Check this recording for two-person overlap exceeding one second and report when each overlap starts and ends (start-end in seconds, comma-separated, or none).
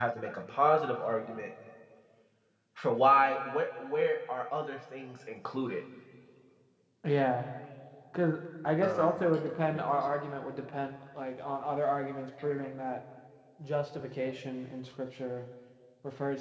none